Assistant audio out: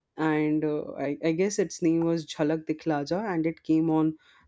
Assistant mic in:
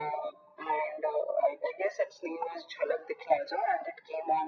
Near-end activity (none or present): none